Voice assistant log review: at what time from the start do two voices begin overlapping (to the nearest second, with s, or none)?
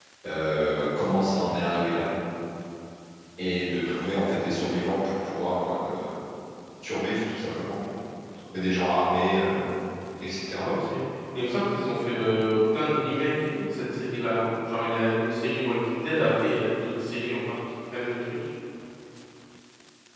none